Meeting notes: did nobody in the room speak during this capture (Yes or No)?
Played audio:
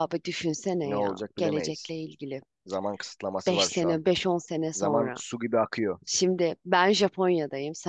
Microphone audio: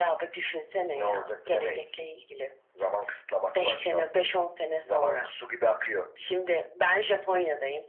Yes